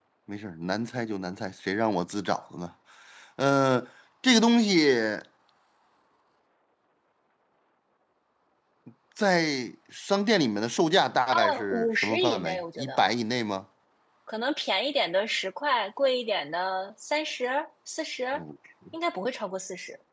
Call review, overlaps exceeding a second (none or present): present